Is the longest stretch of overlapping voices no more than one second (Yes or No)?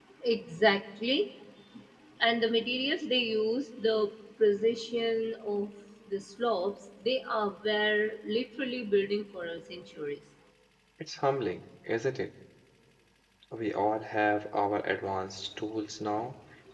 Yes